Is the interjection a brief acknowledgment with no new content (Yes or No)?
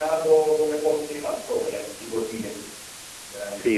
No